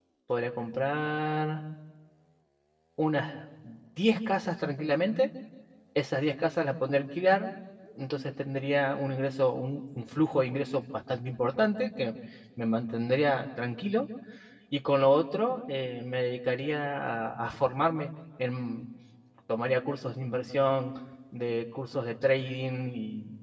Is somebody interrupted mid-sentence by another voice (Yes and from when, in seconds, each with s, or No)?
No